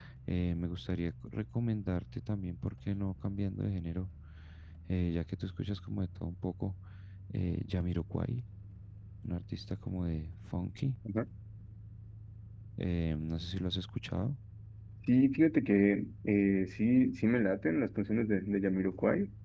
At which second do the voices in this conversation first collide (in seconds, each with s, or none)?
none